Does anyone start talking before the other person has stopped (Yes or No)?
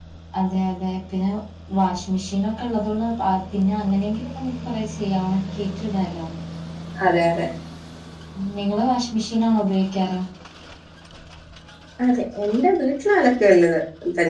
No